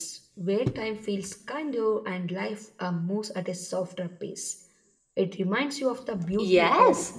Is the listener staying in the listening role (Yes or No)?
No